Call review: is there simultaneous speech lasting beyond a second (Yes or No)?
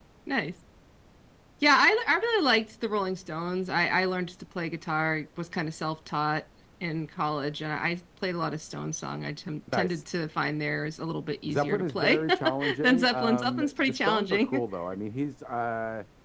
Yes